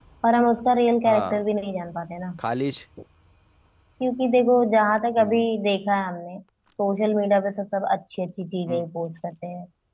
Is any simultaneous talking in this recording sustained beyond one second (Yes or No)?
No